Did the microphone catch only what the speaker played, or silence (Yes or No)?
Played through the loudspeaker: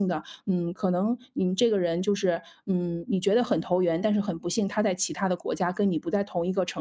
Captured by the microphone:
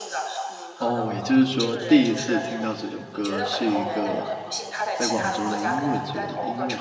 No